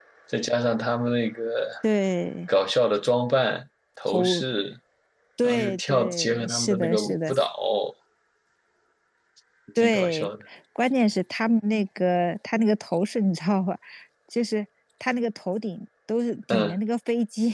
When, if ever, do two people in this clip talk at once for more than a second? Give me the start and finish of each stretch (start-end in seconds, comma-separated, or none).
5.4-7.3